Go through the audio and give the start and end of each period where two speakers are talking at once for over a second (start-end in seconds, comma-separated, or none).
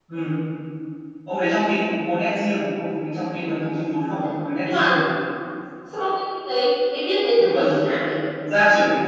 none